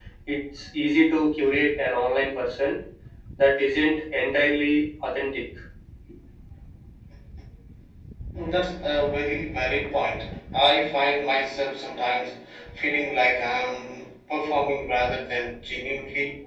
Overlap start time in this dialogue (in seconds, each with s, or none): none